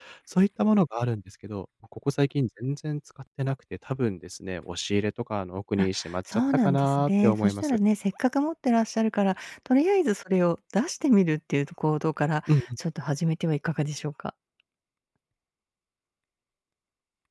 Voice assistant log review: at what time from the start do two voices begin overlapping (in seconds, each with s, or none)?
5.8 s